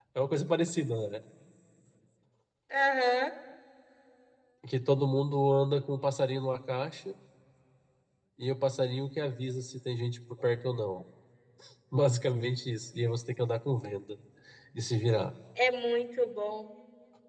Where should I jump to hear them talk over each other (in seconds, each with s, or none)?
none